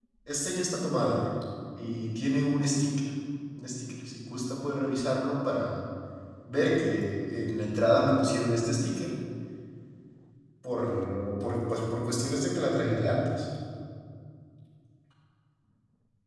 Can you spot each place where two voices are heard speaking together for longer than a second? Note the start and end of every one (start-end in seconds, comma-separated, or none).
none